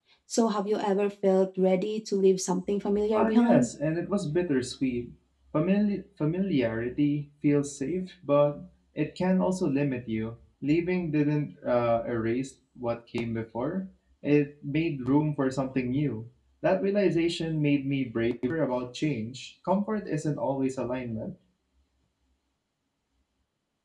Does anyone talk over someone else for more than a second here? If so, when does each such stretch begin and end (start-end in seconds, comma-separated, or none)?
none